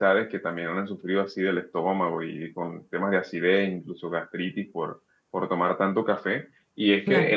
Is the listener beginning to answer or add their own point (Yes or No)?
No